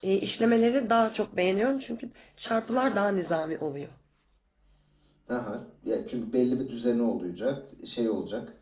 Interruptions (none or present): none